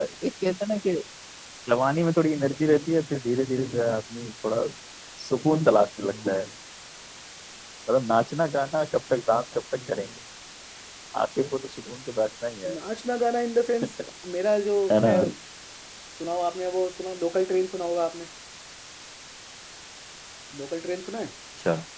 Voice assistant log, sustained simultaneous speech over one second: none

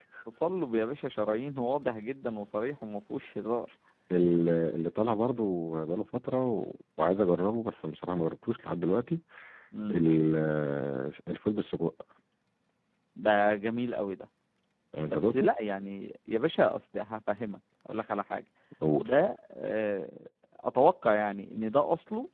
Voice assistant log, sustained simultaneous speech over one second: none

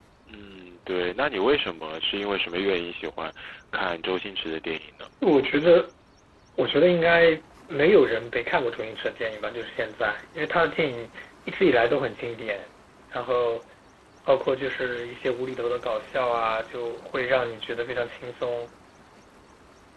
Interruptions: none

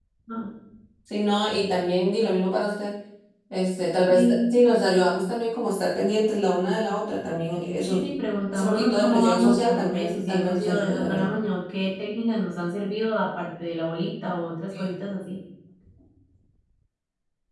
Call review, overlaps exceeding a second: present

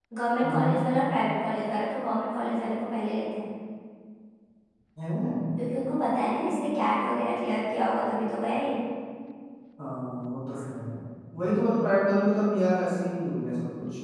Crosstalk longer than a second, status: none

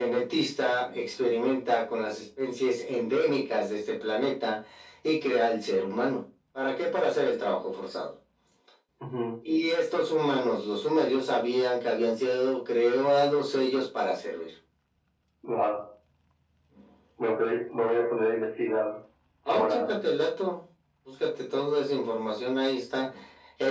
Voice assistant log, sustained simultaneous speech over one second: none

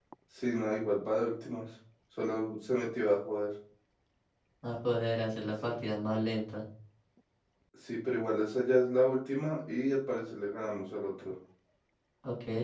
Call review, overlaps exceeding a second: none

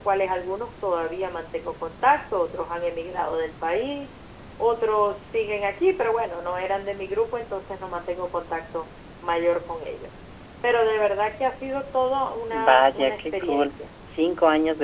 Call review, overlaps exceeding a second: present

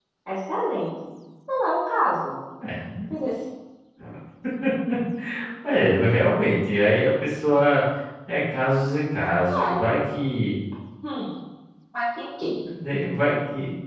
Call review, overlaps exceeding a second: none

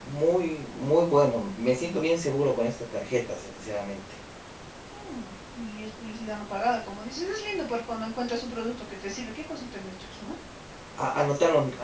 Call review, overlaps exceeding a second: none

